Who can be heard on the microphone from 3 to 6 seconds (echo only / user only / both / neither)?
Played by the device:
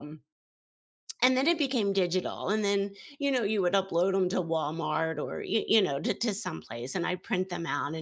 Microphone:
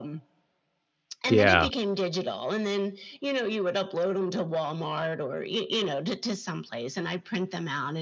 echo only